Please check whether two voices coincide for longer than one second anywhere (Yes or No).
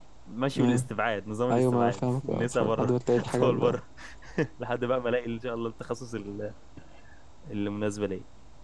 Yes